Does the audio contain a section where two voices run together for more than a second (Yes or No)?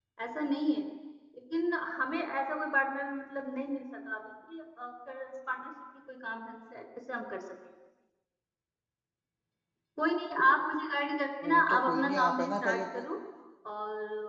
Yes